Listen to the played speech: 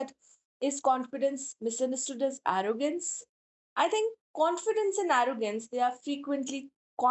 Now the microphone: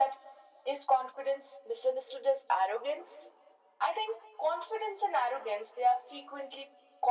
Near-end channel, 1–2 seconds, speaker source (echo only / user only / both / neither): echo only